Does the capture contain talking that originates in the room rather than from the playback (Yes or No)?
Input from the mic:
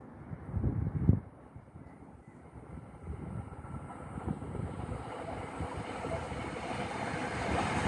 No